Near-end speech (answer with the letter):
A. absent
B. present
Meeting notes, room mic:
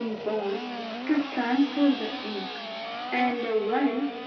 A